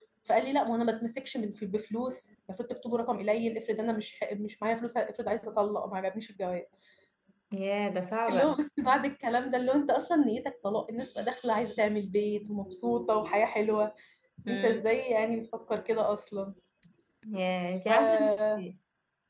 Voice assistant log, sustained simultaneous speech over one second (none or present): none